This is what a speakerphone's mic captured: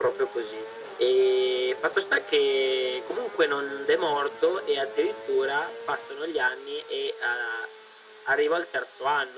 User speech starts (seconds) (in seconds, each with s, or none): none